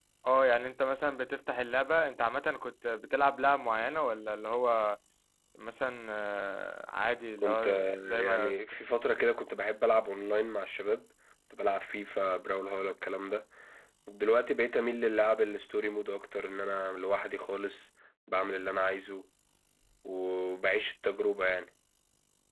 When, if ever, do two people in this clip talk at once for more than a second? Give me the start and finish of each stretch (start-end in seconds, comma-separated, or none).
7.4-8.8